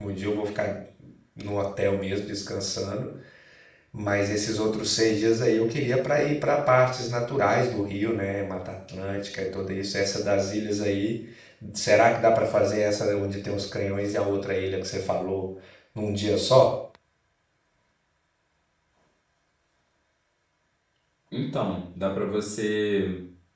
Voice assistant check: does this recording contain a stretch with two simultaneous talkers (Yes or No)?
No